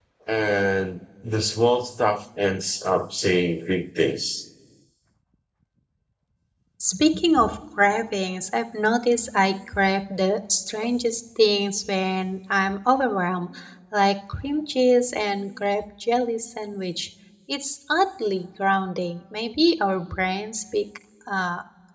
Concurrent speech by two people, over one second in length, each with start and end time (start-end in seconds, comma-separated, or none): none